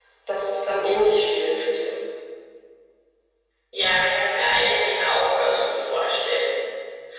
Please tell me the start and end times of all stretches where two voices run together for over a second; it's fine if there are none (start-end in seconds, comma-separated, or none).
none